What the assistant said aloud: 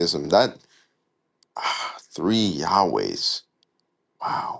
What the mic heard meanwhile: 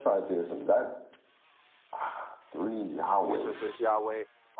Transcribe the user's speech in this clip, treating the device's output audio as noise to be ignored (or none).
Jesus is Yahweh.